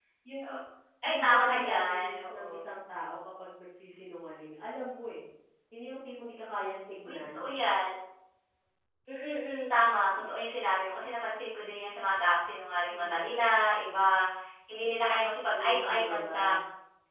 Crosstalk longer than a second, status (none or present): present